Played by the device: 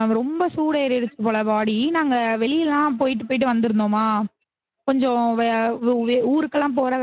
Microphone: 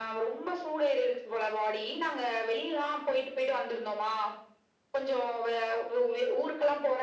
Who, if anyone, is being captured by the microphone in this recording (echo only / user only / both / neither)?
echo only